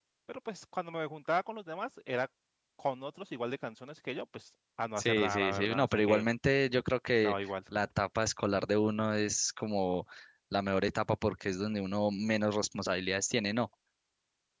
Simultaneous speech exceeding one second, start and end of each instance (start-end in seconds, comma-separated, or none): 5.0-6.2